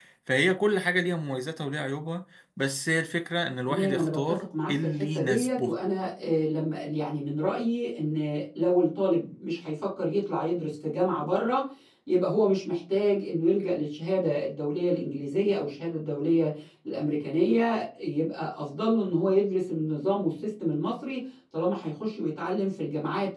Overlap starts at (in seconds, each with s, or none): 3.7 s